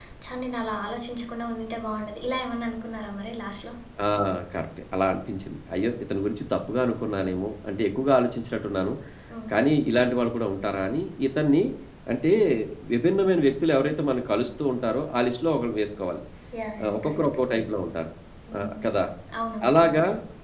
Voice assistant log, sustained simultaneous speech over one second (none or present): none